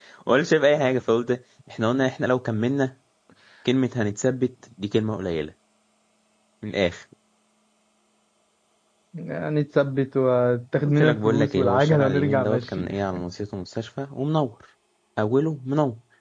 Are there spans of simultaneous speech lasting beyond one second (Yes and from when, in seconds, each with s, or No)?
Yes, from 10.8 s